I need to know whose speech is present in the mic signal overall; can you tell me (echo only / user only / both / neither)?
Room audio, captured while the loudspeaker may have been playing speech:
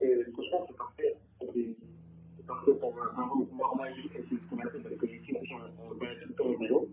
echo only